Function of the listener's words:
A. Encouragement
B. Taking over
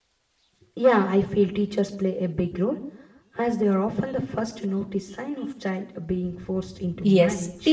B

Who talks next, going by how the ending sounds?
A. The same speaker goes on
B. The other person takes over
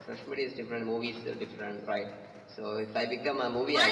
B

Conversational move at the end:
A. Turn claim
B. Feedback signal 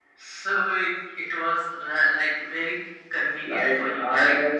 A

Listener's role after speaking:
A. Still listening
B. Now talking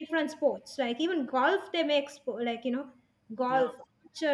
A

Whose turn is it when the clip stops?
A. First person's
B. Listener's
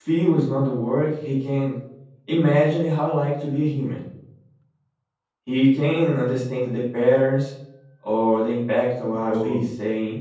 B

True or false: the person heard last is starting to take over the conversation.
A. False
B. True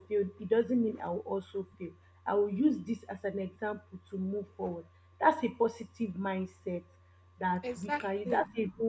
A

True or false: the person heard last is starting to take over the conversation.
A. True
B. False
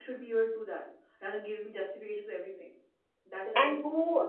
A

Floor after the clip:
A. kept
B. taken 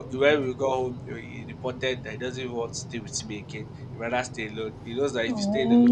A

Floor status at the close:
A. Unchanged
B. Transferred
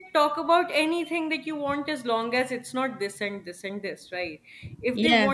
A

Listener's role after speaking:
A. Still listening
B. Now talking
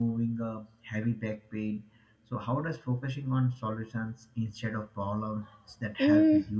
B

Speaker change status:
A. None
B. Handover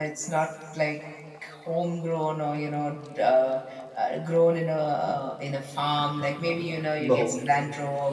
A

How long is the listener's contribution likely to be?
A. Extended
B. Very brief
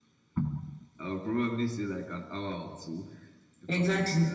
A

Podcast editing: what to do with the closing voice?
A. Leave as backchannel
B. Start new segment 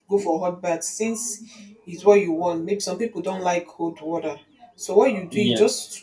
A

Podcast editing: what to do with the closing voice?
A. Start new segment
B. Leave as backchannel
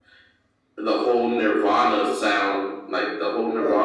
B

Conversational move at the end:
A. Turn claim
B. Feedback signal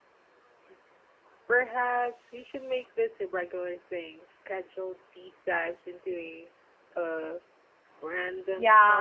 A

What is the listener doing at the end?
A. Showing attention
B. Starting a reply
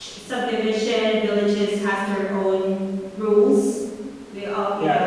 B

